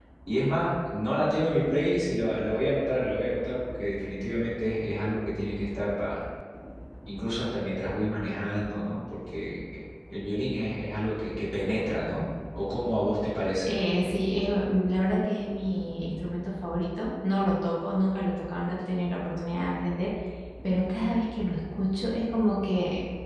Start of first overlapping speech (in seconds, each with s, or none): none